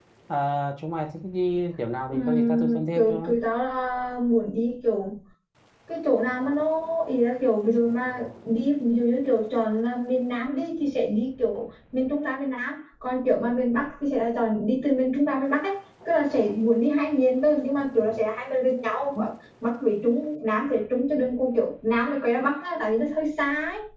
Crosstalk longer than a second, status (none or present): present